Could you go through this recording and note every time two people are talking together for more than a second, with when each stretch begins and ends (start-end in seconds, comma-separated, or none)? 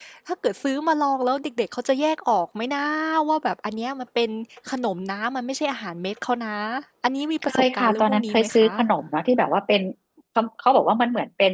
7.4-8.7